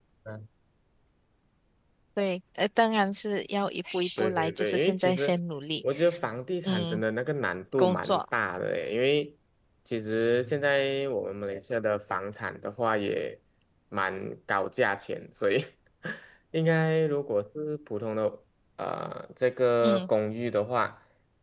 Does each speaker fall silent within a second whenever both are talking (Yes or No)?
No